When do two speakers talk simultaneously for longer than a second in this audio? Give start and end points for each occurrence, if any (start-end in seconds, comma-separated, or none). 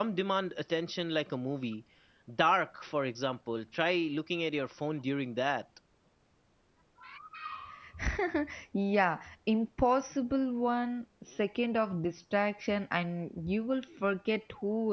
none